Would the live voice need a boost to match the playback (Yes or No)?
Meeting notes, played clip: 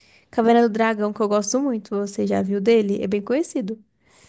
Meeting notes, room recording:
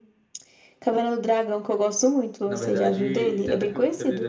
Yes